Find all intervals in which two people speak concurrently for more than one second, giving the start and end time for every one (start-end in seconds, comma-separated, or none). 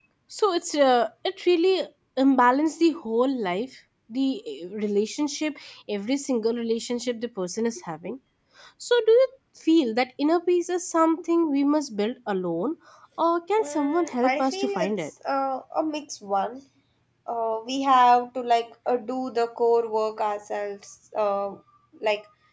13.6-14.9